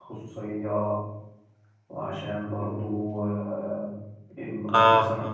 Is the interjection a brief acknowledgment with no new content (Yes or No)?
Yes